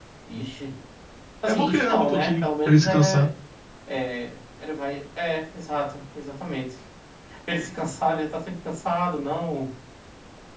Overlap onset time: 1 s

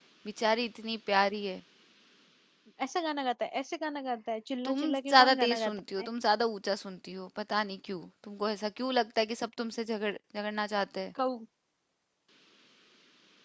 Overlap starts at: 5 s

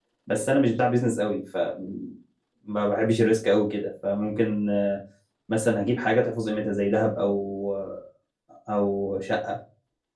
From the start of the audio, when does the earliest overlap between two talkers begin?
none

